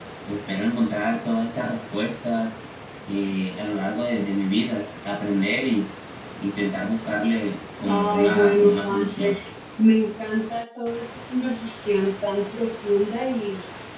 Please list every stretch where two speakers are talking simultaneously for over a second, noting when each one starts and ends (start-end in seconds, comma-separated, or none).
7.9-9.4